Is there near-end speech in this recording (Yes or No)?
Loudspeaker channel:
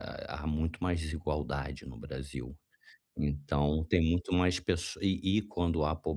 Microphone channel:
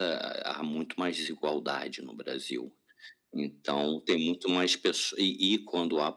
No